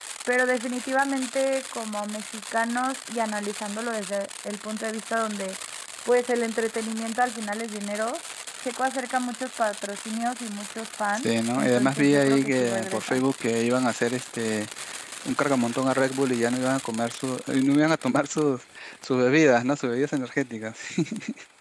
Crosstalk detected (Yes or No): Yes